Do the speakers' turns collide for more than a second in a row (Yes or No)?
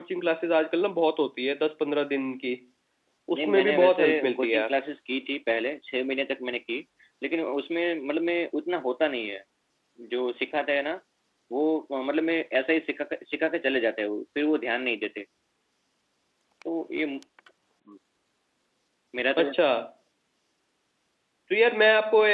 Yes